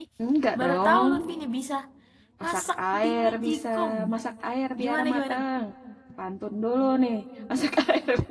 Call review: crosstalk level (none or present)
present